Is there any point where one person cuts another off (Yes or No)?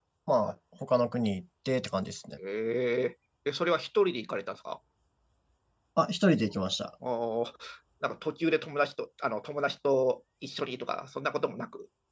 No